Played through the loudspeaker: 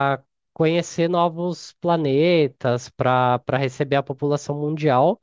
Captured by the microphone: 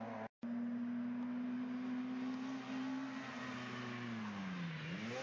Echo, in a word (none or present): none